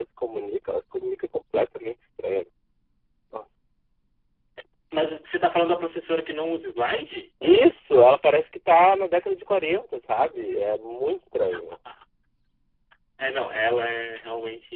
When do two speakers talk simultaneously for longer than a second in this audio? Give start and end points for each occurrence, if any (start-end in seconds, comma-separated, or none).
none